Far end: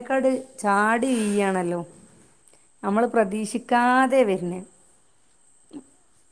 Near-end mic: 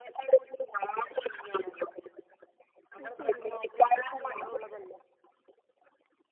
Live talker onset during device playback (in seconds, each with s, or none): 3.0 s